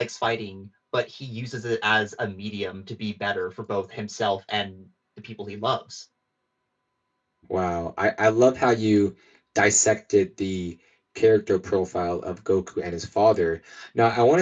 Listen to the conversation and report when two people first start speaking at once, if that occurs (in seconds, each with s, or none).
none